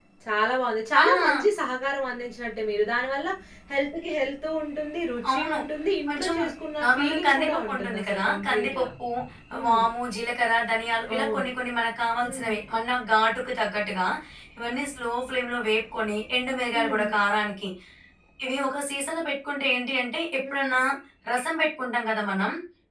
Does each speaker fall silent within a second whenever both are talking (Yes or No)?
No